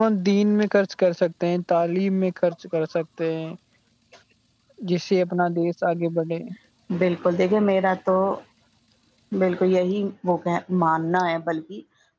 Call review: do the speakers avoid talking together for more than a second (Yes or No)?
Yes